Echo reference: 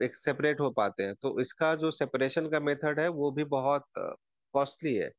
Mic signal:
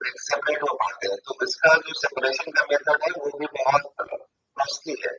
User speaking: No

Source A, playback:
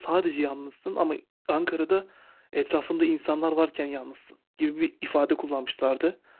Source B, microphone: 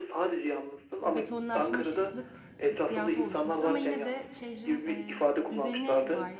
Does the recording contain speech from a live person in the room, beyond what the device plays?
Yes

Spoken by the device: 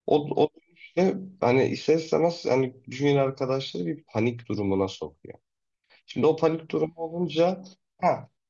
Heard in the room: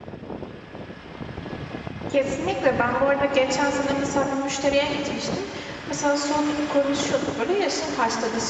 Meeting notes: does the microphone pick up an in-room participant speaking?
Yes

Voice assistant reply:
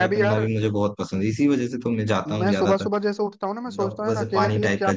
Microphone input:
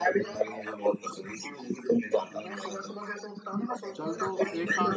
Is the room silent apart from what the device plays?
No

